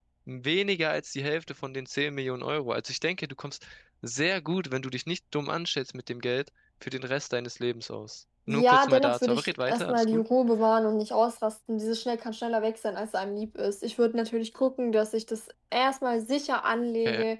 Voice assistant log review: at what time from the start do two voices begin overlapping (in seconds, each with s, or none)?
8.5 s